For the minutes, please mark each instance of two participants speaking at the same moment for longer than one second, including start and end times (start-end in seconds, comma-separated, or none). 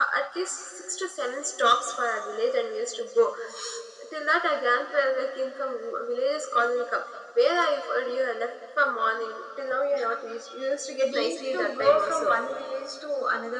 11.0-12.4